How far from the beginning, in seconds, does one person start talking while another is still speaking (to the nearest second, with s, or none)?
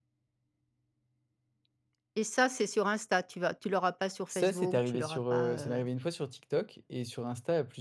4 s